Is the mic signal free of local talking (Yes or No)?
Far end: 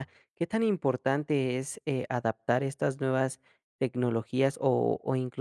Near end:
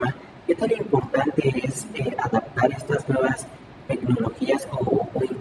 Yes